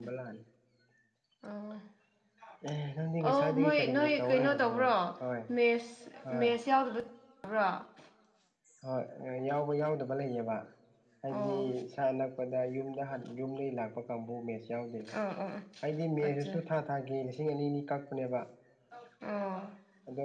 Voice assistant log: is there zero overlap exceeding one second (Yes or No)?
No